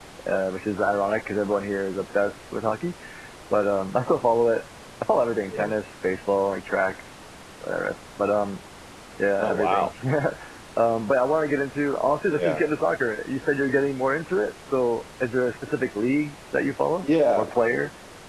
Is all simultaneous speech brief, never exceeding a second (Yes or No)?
Yes